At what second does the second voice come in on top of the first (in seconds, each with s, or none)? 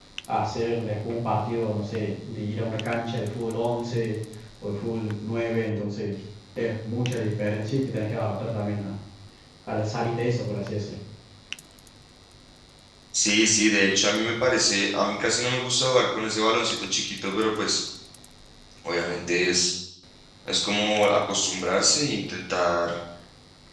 none